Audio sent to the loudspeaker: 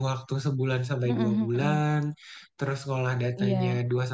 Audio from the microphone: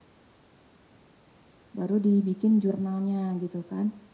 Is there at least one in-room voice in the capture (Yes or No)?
Yes